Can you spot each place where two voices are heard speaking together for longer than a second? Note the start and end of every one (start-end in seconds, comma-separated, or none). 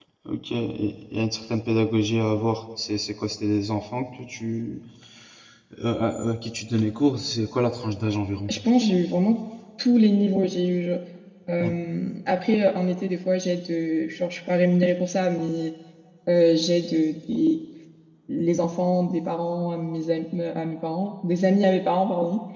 none